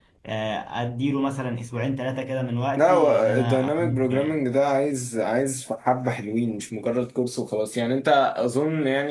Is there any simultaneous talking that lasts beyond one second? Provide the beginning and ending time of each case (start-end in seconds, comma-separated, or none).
2.8-4.4